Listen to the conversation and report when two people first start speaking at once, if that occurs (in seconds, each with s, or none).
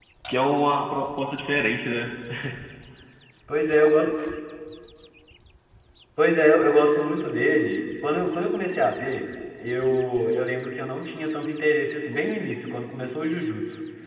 none